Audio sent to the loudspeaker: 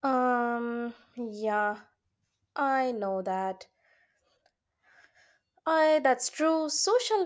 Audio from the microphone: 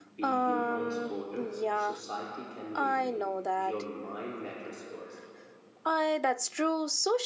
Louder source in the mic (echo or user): echo